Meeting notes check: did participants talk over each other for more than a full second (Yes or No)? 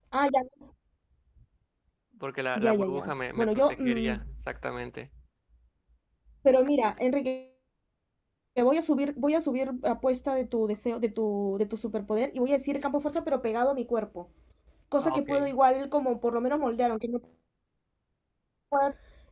Yes